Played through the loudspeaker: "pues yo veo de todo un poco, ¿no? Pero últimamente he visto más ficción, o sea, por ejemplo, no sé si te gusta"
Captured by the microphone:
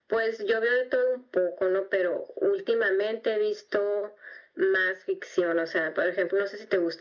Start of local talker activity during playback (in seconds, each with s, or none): none